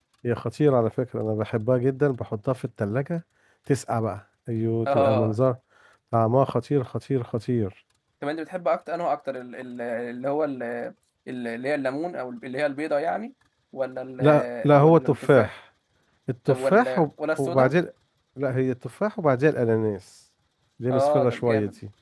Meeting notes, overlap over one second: present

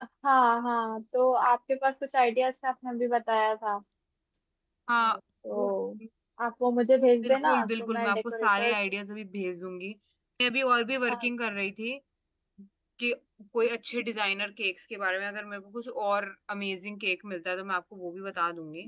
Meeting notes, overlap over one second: present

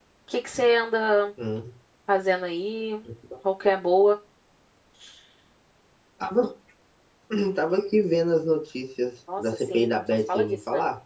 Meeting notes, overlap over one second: present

